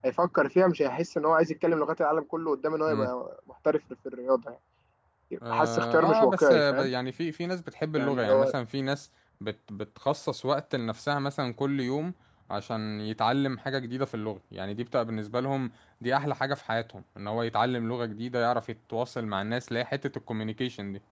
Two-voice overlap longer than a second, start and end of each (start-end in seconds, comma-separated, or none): 5.5-6.9